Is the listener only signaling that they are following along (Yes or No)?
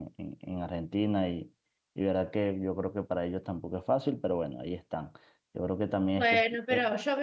No